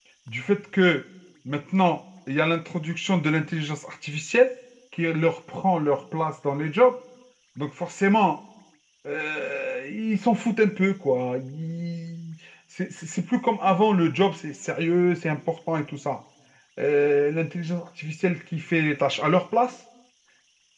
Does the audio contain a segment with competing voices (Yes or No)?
No